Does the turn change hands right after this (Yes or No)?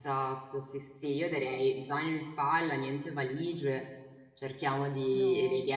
No